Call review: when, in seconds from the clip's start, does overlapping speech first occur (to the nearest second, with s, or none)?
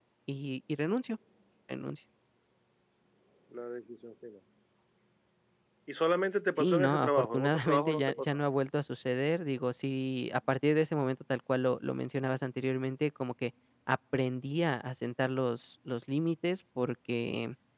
7 s